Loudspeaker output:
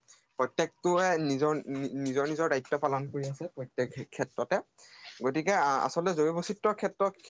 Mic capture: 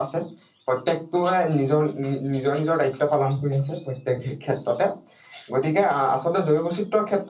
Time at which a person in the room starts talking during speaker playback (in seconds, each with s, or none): none